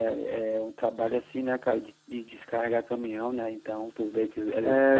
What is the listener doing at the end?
taking over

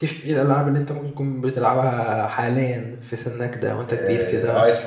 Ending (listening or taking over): taking over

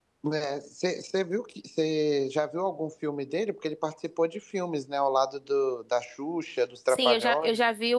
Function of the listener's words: taking over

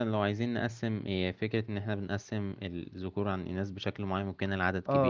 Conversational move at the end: taking over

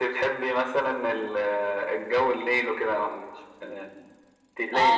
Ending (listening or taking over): taking over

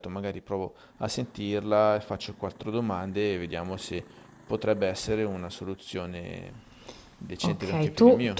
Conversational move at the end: taking over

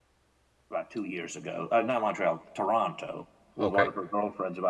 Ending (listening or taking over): listening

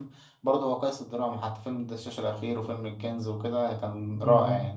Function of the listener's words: taking over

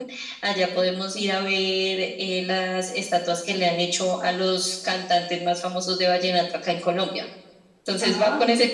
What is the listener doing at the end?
taking over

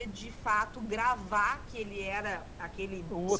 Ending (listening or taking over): taking over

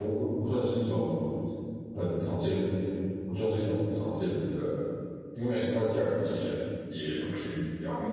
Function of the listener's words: taking over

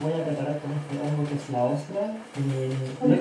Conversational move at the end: listening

